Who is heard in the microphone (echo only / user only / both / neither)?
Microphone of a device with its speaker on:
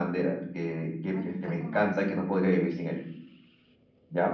both